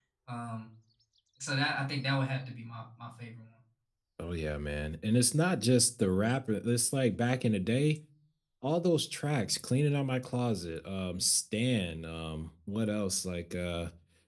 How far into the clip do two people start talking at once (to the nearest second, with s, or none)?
none